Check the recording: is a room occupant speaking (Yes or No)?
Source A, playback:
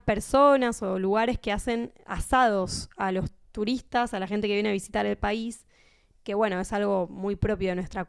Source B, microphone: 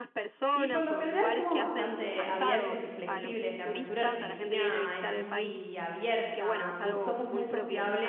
Yes